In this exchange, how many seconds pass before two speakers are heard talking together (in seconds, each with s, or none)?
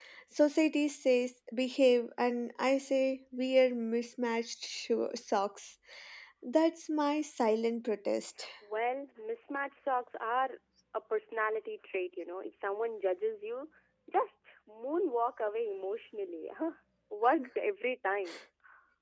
none